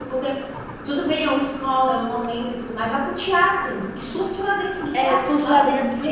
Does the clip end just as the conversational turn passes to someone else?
Yes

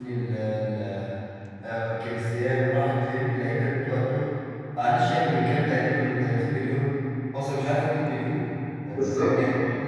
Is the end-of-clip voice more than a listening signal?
No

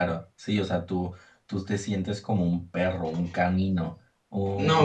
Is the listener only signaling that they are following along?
No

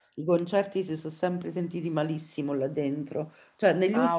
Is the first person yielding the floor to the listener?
No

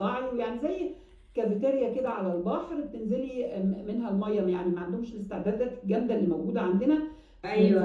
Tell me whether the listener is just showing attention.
Yes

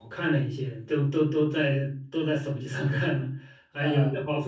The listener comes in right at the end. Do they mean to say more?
No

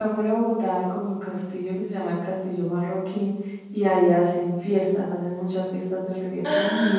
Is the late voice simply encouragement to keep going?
Yes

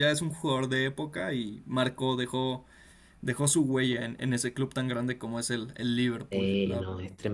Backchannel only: No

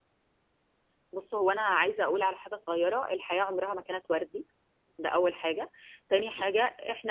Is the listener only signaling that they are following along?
Yes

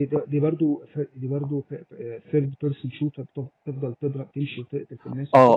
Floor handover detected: Yes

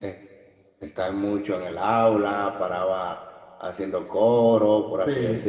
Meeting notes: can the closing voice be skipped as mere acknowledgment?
Yes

